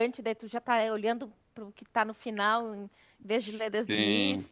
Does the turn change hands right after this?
Yes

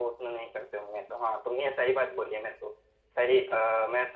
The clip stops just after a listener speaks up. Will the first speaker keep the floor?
Yes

